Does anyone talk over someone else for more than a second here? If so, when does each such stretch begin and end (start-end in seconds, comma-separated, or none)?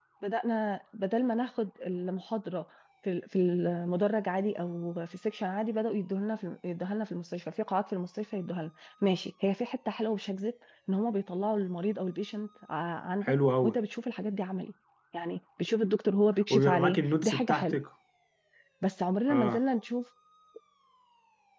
16.5-17.8